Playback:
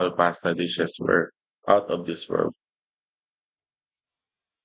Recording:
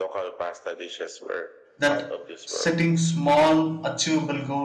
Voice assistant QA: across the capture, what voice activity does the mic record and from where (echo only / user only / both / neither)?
both